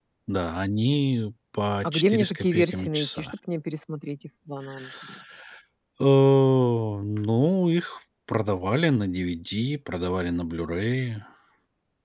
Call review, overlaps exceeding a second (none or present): present